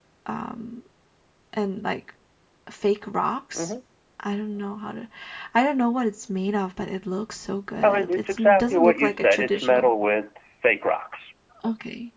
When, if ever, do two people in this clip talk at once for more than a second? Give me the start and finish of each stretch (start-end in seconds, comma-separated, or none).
7.8-9.9